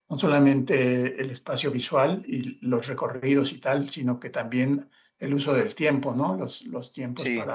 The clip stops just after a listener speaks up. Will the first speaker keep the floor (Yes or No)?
Yes